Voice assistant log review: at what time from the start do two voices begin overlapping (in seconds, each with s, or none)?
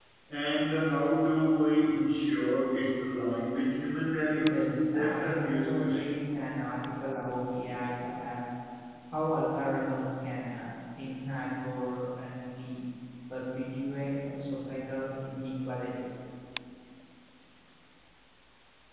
4.3 s